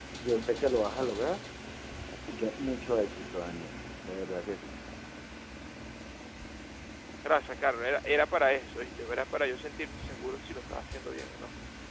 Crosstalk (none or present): none